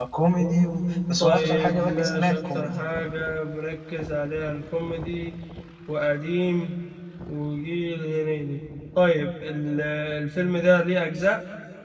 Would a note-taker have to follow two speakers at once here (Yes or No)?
Yes